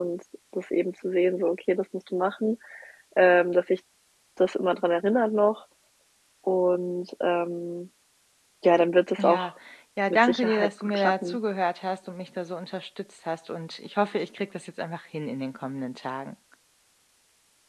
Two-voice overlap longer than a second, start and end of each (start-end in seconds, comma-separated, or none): 10.1-11.4